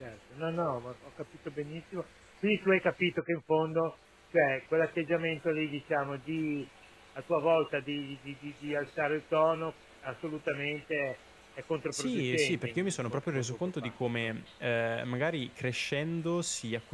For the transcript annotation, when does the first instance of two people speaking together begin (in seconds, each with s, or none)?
11.9 s